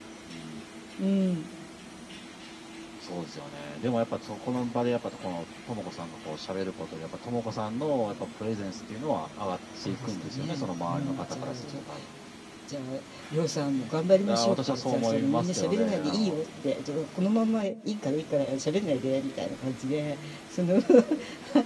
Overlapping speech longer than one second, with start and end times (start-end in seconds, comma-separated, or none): 9.8-11.6, 14.3-16.4